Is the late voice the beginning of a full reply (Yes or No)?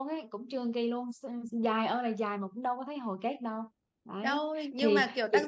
Yes